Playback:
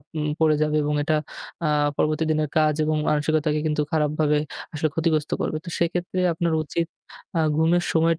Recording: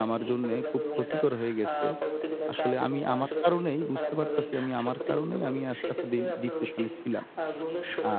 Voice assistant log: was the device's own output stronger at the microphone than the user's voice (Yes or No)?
No